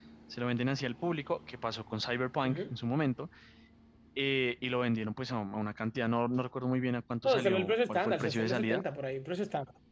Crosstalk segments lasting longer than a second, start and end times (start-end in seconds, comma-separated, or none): 7.2-8.8